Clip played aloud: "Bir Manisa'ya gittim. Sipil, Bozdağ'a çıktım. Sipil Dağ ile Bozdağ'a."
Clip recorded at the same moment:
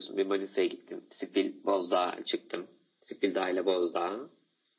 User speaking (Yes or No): No